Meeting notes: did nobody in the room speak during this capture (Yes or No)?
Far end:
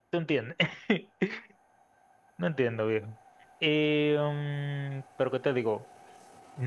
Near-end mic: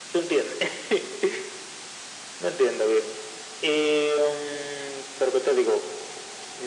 Yes